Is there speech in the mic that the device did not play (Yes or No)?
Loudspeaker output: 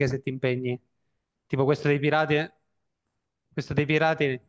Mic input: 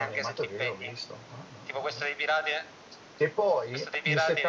Yes